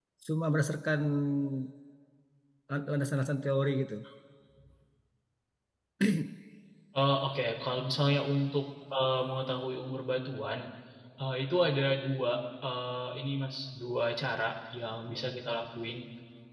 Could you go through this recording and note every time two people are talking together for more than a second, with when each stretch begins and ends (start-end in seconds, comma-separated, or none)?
none